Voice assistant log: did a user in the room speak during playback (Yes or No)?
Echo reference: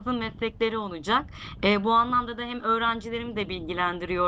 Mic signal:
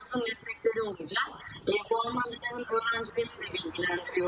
No